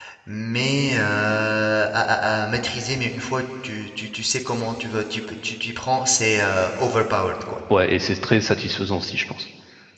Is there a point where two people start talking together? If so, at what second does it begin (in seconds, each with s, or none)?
none